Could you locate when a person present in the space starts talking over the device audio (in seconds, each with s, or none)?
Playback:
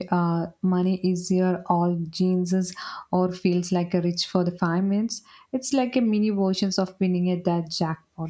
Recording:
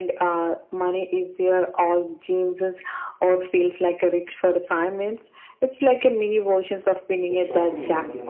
7.2 s